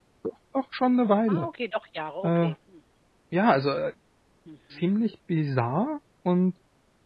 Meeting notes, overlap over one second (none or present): none